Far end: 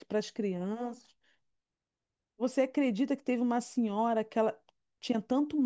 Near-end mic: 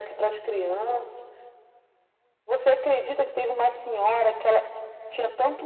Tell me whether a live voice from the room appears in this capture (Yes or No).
No